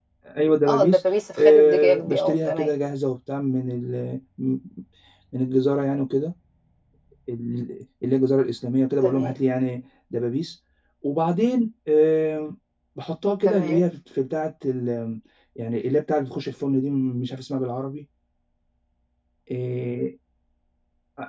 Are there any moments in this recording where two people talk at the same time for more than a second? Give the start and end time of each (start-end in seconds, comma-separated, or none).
0.7-2.7